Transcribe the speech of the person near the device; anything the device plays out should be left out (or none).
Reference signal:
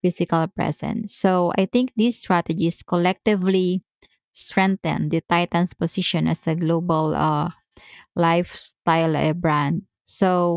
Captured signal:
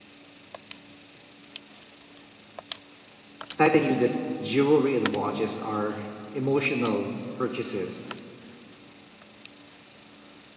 Titan knew that jewelry and watches are emotional purchases